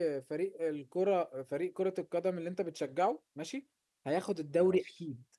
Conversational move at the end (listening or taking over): listening